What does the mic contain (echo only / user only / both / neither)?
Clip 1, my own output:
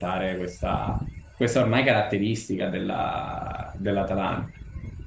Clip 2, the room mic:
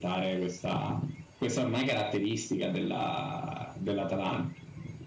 echo only